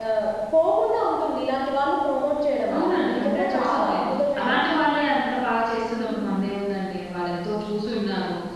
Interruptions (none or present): present